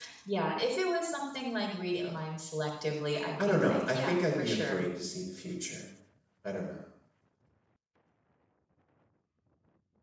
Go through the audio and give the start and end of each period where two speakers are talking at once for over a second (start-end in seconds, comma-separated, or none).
3.5-4.8